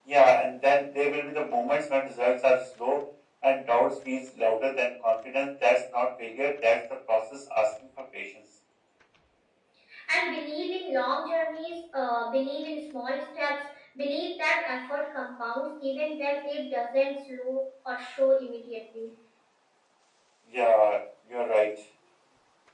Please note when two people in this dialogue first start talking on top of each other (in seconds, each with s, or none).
none